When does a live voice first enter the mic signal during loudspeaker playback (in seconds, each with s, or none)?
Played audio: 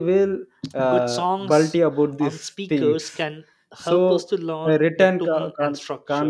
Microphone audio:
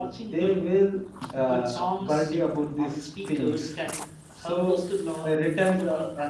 none